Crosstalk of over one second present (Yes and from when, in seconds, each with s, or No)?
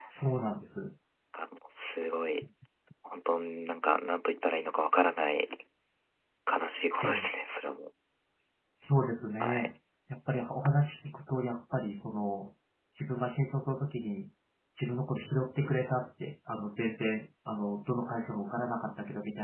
No